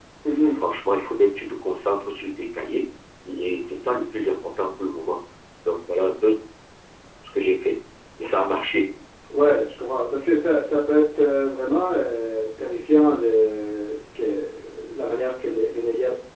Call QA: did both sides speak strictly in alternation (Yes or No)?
Yes